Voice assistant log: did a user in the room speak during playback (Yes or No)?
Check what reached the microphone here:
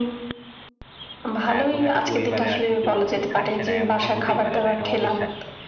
Yes